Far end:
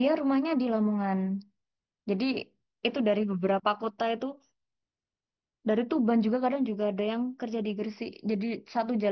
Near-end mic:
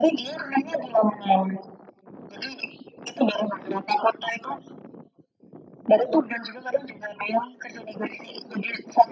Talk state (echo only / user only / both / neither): echo only